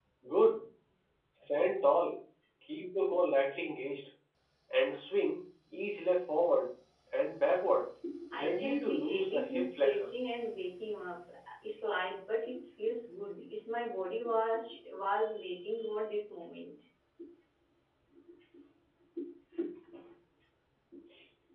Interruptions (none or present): present